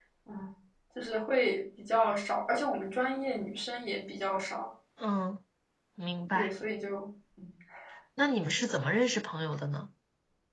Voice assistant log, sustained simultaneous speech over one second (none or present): none